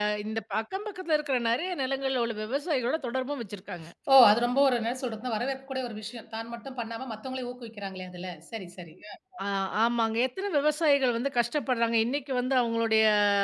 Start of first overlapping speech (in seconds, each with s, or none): none